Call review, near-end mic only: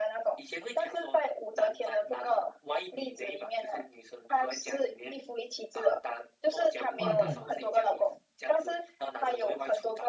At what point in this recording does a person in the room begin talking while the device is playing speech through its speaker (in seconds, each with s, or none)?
7.0 s